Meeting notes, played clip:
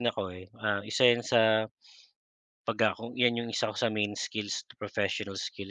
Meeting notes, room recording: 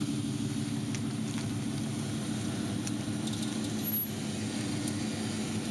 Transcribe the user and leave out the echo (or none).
none